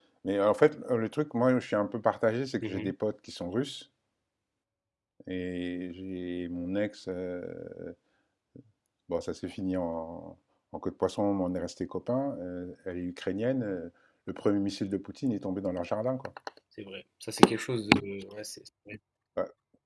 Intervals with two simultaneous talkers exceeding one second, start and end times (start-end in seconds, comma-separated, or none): none